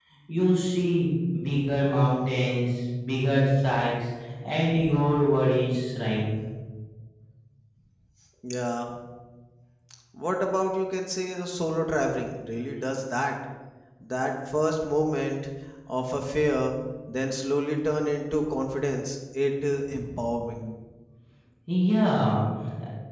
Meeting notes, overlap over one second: none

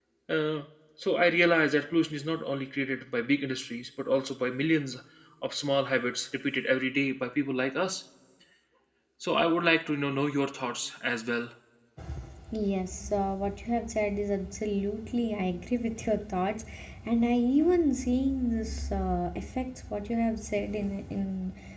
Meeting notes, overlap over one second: none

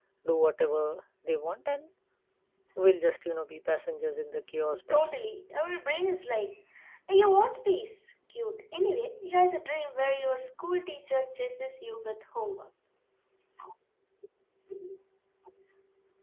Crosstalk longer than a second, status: none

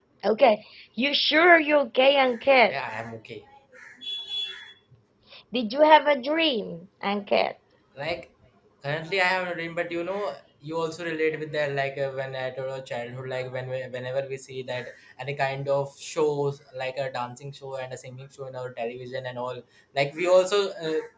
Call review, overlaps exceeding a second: none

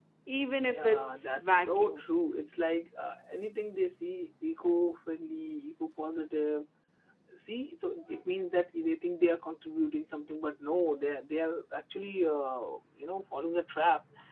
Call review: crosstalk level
present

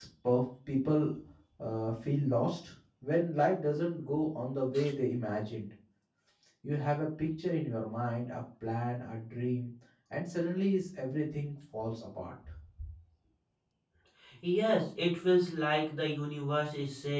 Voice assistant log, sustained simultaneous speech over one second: none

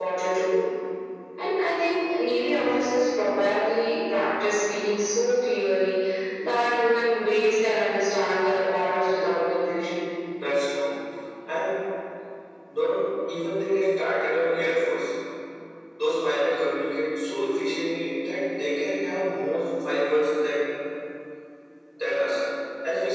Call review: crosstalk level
none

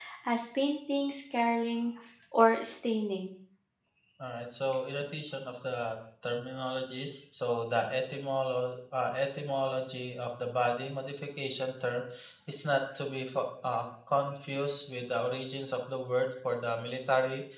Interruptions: none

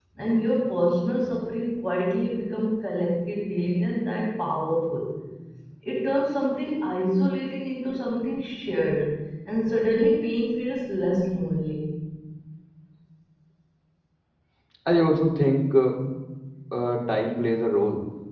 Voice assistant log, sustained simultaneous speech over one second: none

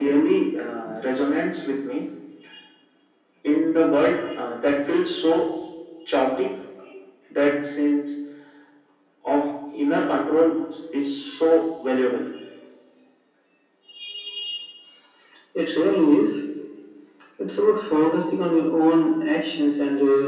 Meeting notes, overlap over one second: none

